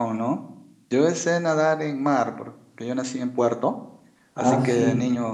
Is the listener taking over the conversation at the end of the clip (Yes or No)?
No